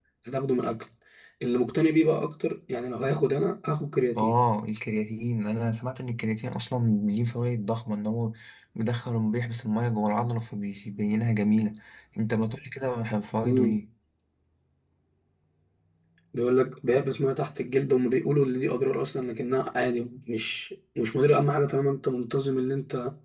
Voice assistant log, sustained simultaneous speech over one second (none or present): none